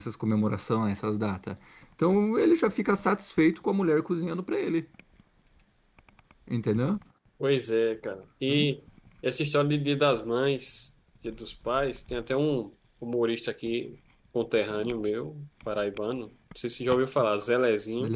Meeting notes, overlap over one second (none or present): none